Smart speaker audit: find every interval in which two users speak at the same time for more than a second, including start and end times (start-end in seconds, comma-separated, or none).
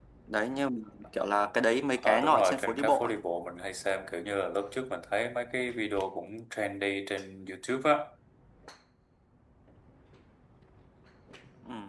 1.9-3.1